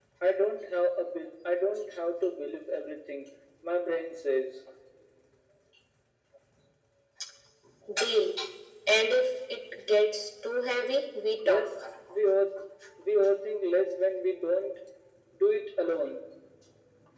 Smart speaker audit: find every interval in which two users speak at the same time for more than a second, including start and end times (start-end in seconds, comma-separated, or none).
none